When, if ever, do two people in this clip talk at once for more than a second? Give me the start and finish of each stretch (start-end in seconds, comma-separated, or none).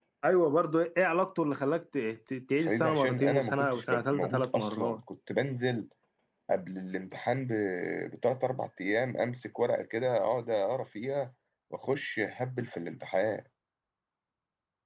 2.6-5.0